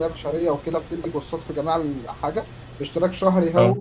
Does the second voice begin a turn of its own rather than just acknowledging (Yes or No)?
No